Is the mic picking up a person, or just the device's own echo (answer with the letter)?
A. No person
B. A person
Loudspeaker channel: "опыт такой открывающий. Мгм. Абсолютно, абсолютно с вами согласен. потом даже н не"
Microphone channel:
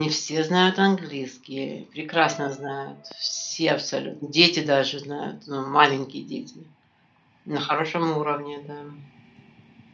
B